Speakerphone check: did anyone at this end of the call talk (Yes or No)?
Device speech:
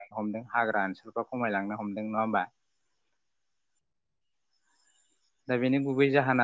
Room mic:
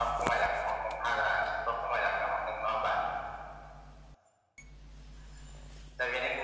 No